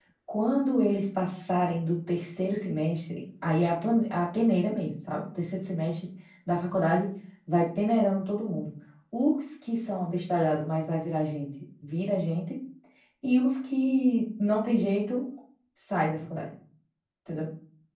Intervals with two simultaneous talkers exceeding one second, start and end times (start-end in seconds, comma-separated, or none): none